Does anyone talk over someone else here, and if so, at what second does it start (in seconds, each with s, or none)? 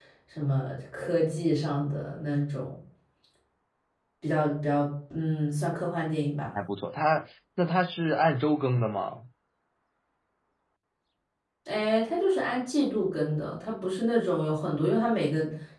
none